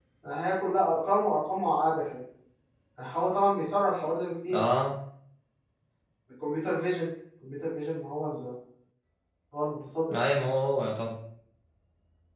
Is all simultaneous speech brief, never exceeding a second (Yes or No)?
Yes